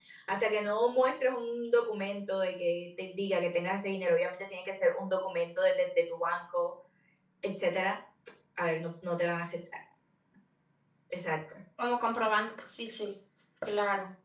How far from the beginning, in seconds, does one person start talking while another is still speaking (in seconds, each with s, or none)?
none